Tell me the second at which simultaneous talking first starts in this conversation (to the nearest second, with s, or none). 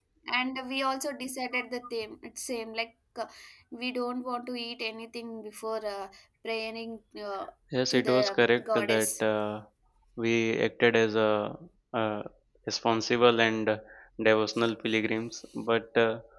8 s